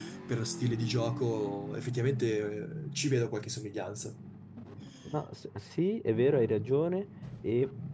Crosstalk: none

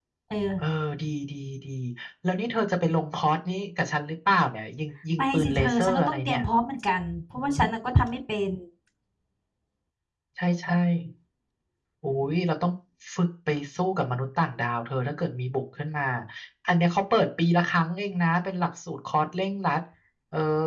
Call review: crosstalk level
present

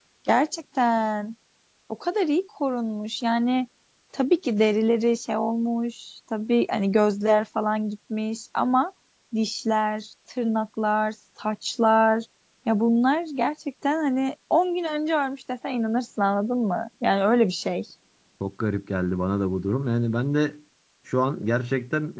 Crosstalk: none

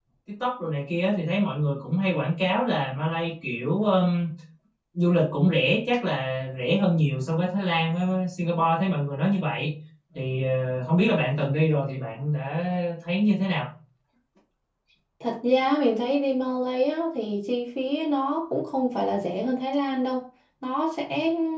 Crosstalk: none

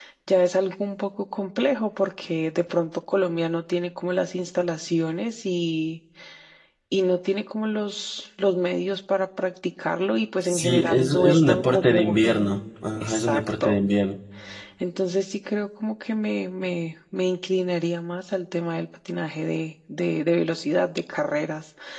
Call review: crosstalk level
present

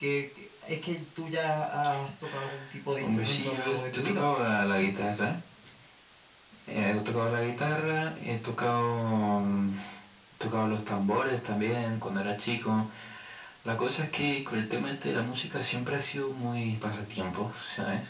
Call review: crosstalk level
present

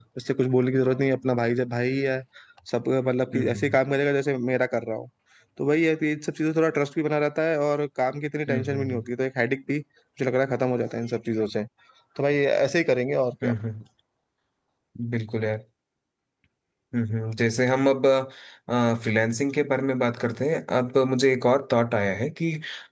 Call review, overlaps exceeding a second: none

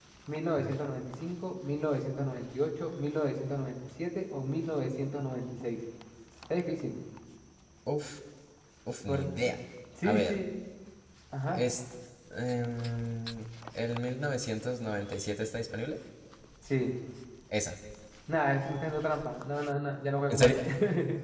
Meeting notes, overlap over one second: none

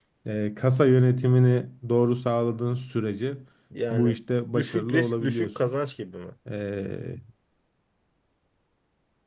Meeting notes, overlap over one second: present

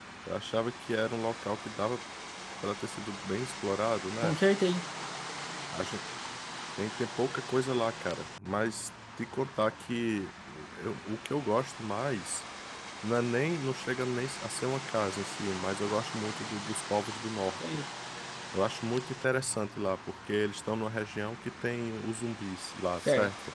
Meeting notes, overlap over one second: none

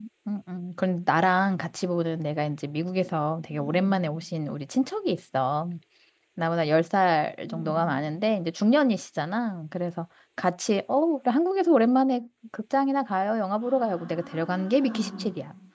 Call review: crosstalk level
present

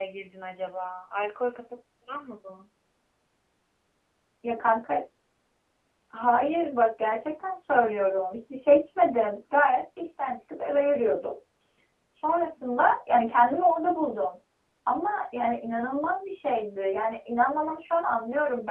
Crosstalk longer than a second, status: none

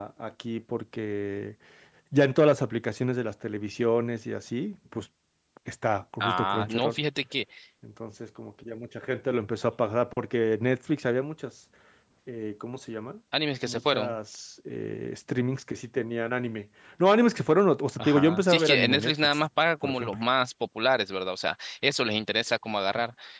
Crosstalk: present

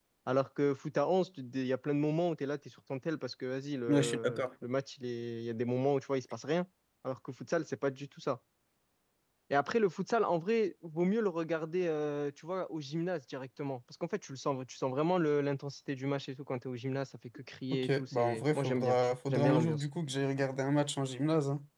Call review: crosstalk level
present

